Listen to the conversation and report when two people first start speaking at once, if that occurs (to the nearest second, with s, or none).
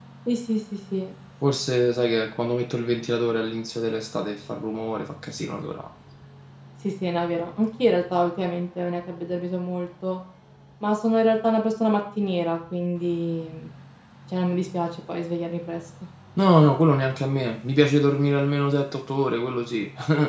none